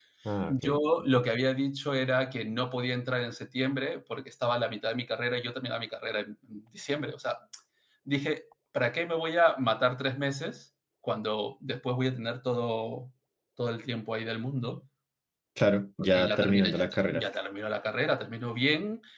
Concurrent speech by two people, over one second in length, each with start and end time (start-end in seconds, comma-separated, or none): 16.0-17.3